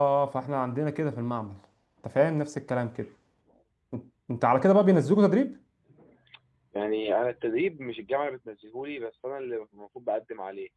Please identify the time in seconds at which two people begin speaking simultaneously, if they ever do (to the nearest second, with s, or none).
none